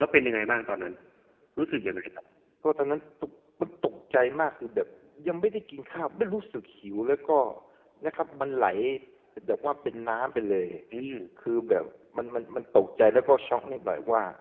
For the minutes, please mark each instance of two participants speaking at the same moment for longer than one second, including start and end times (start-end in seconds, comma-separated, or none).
none